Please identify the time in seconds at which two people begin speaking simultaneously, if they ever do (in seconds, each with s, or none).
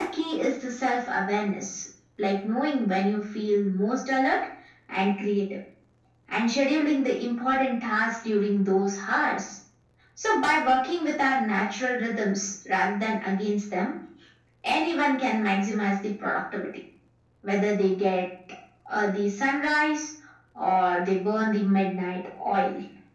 none